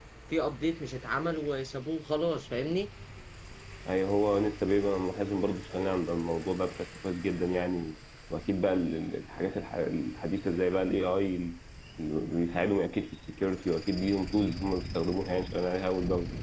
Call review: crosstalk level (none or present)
none